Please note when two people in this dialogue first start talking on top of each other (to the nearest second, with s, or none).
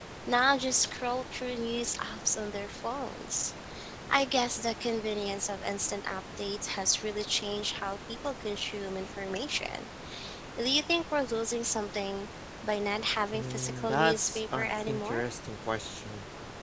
13 s